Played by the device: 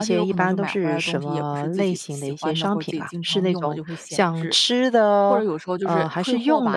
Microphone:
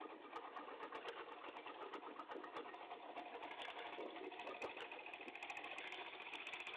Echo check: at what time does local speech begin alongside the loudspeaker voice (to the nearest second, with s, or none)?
none